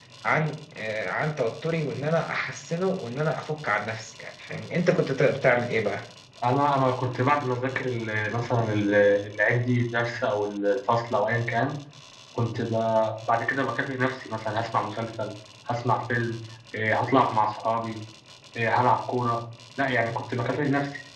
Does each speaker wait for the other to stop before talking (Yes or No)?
Yes